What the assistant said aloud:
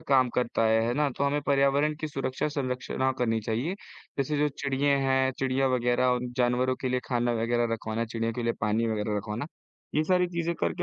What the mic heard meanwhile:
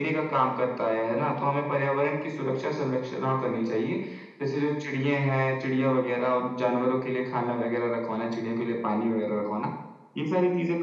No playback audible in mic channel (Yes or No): No